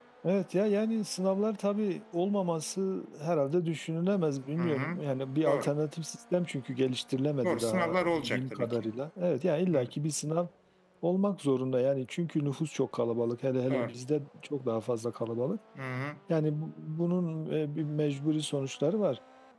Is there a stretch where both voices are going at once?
Yes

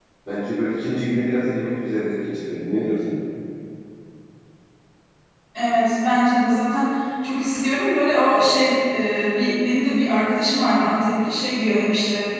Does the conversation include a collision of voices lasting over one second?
No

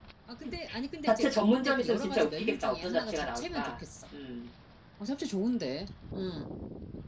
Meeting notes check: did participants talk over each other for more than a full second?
Yes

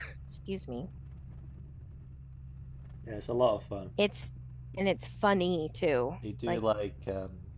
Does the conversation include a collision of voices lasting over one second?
No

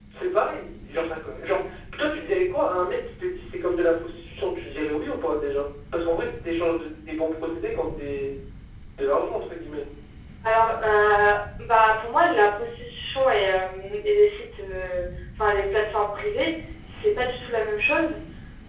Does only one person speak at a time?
Yes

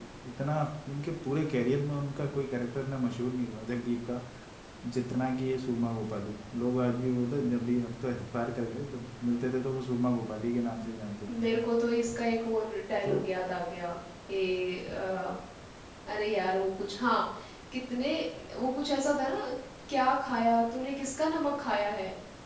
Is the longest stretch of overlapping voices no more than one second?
Yes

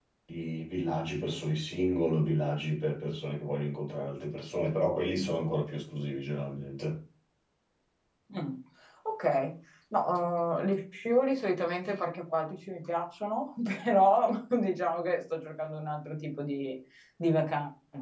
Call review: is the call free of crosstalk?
Yes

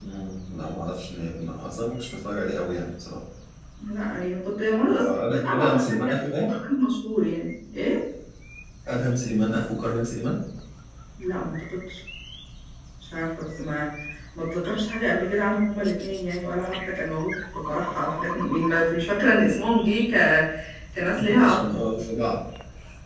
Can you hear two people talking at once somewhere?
Yes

